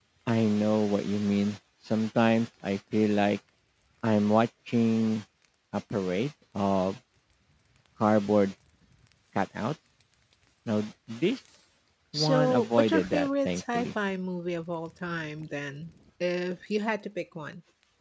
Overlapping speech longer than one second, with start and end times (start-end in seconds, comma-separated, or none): 12.1-13.9